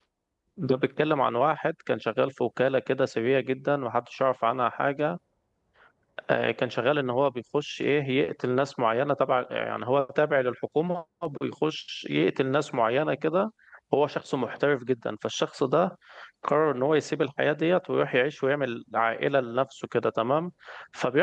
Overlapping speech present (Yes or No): No